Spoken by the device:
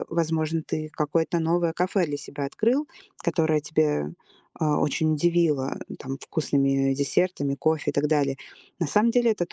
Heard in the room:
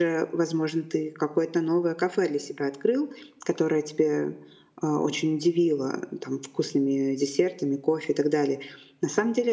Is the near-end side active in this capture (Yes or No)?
No